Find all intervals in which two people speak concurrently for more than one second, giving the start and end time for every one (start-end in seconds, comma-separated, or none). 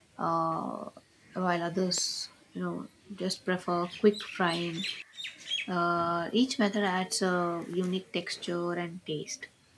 none